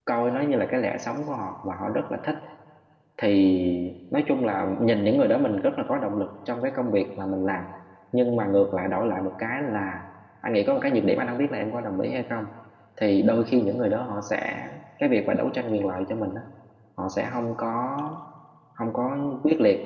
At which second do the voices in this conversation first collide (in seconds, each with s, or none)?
none